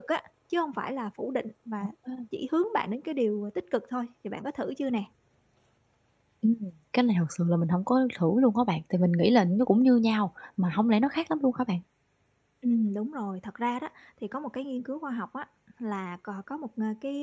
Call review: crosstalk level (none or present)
none